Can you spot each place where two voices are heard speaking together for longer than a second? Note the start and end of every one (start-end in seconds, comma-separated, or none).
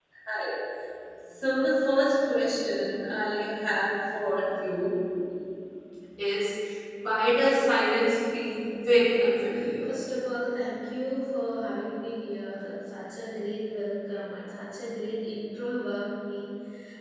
none